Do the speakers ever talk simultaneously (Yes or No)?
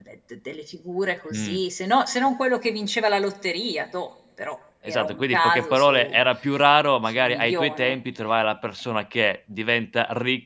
Yes